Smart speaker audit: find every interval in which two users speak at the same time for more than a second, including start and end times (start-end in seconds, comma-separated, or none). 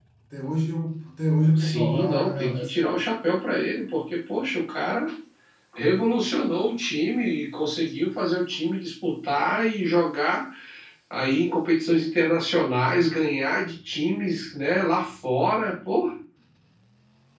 1.6-3.0